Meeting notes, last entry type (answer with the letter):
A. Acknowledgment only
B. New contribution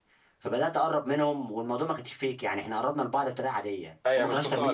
B